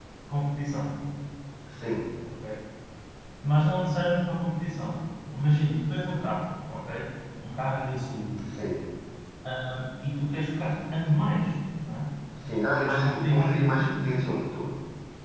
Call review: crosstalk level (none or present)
present